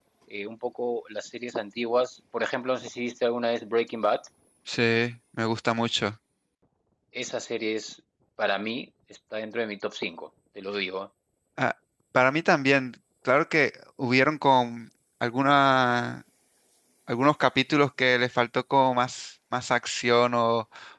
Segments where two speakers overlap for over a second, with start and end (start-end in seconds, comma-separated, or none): none